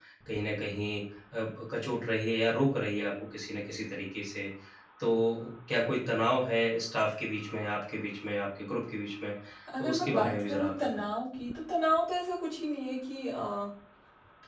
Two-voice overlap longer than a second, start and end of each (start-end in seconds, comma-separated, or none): 9.8-11.0